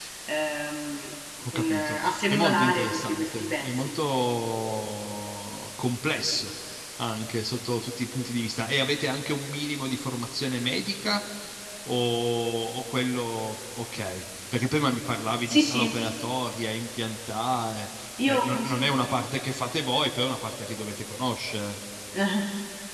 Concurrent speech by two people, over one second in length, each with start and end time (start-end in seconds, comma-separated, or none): 1.5-3.9